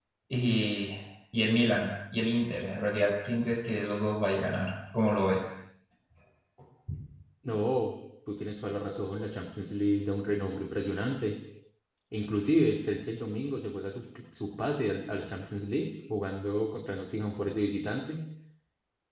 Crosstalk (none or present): none